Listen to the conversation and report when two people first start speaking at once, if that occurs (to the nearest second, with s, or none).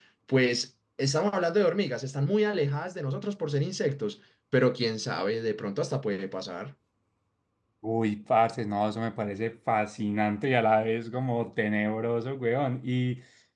none